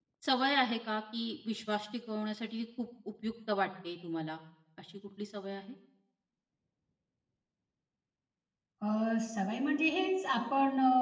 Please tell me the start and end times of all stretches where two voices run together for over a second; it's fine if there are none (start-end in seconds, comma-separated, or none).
none